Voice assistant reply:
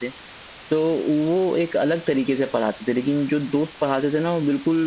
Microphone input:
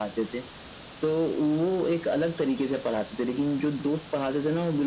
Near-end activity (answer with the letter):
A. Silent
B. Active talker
A